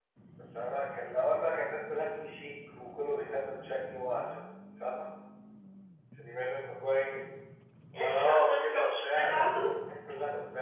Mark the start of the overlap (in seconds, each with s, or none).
8.0 s